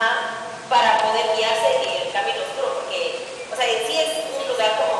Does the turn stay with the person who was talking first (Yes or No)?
Yes